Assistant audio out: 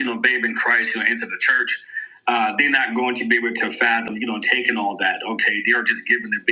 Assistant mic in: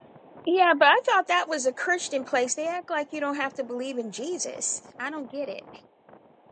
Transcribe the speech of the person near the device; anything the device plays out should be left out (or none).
Yeah, but I thought that was a Christian place. They act like you don't have to believe in Jesus. I don't get it.